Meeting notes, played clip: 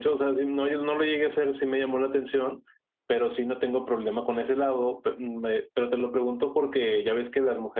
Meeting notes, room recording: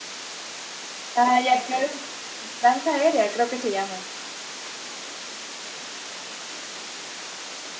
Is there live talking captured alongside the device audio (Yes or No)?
Yes